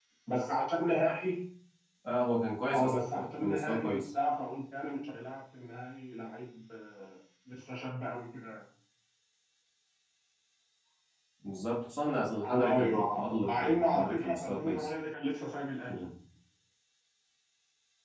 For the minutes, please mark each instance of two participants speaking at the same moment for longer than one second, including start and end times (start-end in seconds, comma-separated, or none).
2.7-4.0, 12.4-14.9